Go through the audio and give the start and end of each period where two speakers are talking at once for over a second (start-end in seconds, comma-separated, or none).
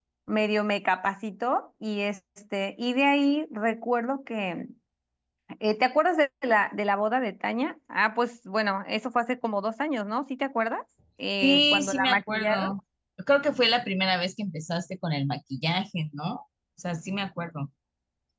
11.4-12.7